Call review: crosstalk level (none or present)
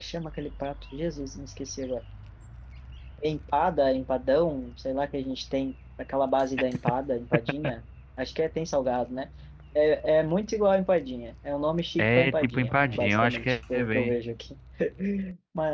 present